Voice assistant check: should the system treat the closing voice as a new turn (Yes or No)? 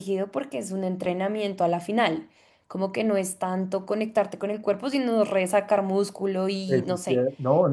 Yes